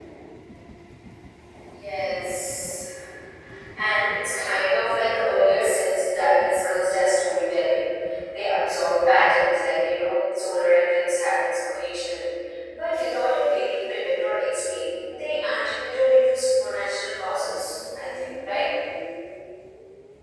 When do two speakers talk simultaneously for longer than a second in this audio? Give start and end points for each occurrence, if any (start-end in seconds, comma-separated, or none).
none